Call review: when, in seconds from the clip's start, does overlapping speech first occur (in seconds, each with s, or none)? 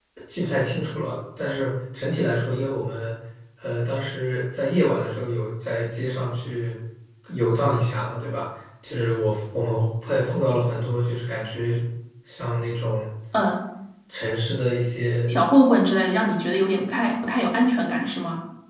none